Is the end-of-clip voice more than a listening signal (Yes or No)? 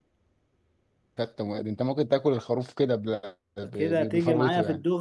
Yes